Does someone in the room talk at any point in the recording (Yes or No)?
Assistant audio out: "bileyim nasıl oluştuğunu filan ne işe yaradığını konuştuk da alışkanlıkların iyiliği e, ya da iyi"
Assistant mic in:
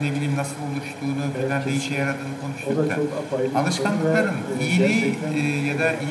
Yes